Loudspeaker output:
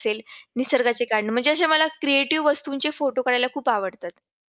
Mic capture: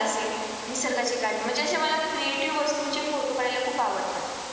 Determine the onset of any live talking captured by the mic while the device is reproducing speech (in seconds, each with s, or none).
none